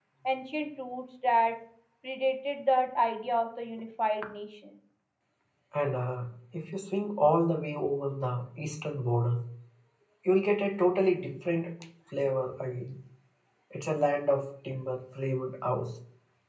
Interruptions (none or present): none